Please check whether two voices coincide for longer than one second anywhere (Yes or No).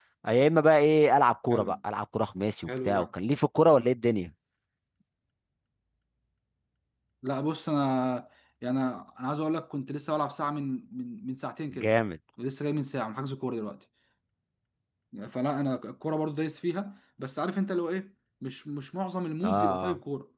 No